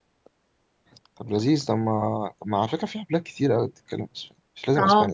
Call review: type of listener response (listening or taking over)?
taking over